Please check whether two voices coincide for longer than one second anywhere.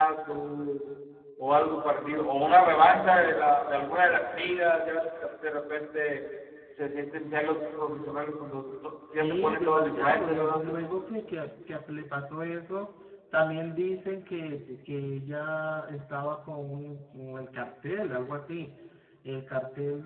Yes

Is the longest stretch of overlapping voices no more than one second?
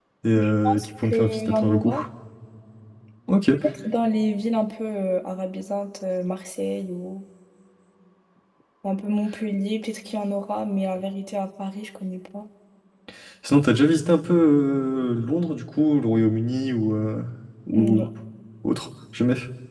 No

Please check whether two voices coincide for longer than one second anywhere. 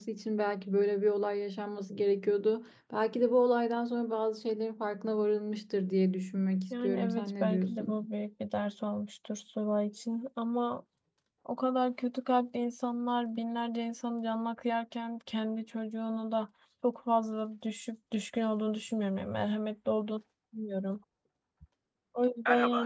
Yes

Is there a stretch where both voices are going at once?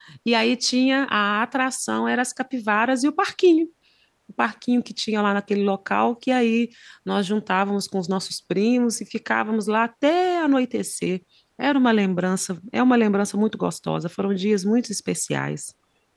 No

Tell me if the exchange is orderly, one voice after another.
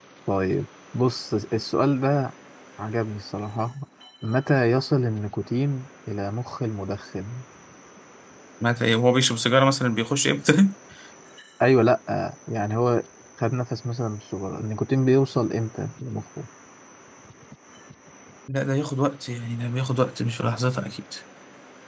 Yes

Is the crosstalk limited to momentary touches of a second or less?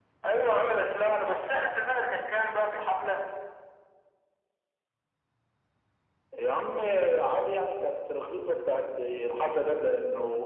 Yes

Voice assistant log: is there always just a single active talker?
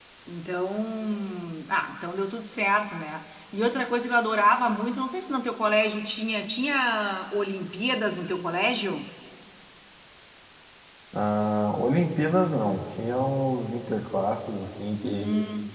Yes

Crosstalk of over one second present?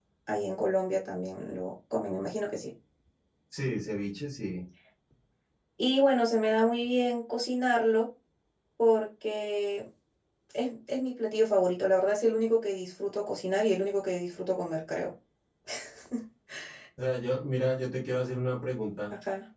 No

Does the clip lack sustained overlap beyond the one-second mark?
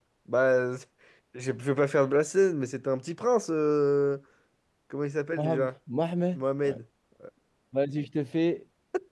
Yes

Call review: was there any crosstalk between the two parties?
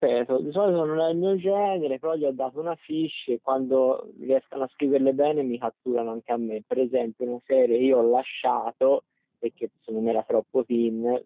No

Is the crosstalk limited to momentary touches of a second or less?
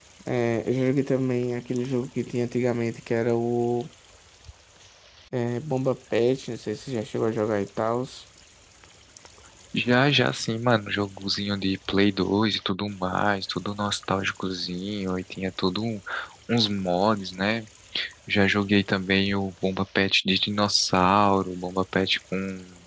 Yes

